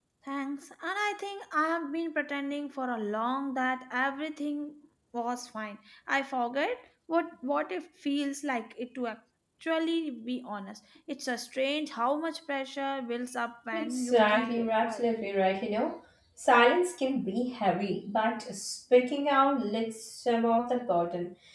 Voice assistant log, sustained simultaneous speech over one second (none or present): present